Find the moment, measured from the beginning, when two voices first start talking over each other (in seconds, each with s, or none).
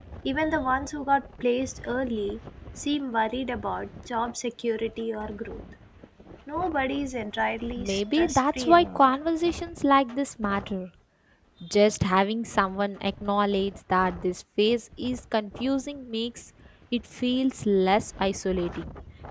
7.8 s